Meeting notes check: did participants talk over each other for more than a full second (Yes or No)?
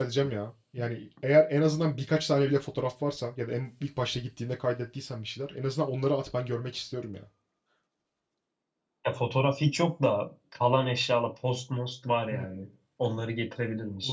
No